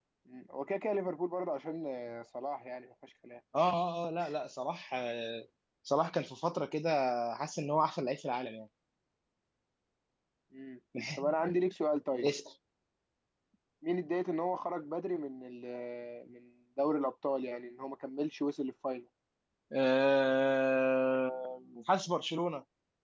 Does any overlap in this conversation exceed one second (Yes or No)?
No